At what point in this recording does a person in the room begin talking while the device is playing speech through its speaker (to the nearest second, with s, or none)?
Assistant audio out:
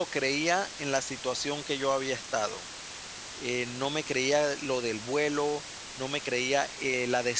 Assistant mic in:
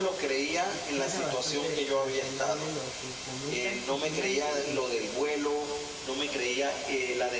1 s